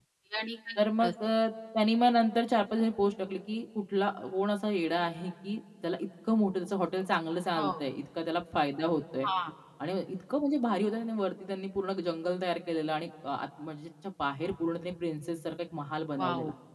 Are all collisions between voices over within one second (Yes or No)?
Yes